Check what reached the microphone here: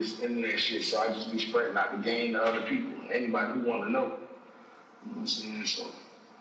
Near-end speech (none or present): none